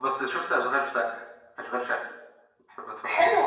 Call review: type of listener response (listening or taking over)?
taking over